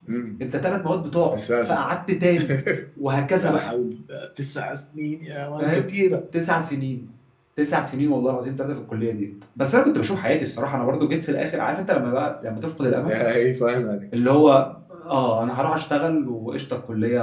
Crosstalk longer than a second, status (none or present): none